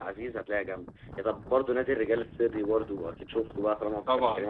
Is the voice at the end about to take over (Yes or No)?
Yes